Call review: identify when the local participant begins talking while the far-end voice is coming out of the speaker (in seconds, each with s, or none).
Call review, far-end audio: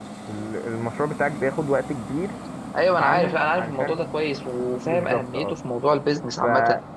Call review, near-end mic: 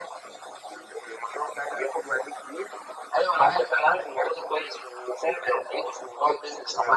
none